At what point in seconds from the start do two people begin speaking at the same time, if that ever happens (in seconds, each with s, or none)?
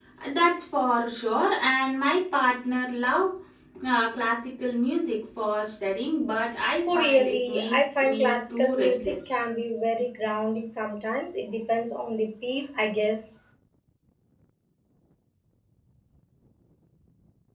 6.8 s